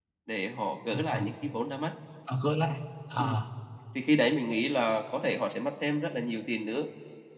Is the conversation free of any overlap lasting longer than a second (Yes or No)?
Yes